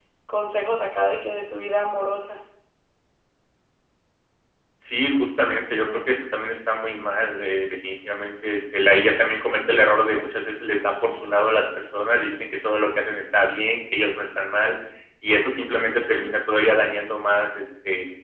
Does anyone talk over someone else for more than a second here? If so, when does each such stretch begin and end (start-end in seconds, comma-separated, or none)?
none